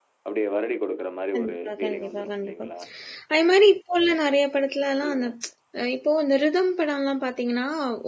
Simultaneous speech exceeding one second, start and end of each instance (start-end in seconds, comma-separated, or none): 1.4-2.6